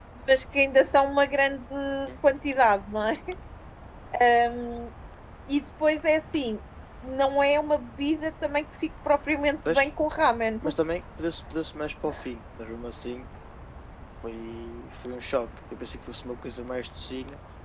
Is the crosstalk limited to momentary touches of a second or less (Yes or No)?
Yes